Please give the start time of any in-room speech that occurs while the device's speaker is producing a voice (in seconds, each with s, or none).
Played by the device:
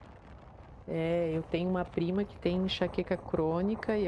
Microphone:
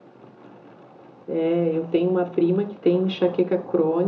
none